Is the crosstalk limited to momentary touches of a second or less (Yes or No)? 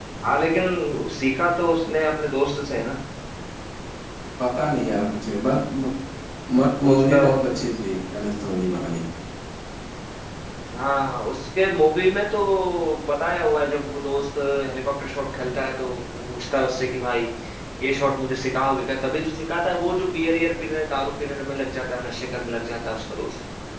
Yes